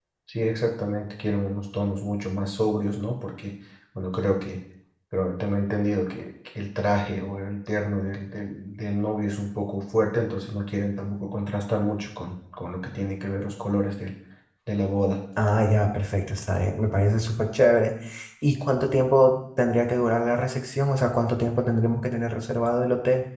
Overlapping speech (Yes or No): No